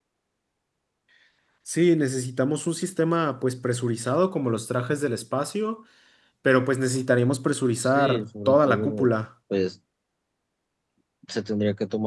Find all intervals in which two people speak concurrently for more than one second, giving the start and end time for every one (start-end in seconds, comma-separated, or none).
7.8-9.1